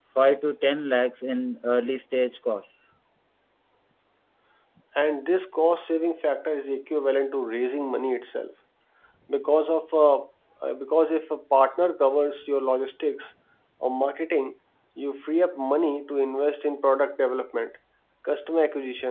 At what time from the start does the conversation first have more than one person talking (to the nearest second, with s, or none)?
none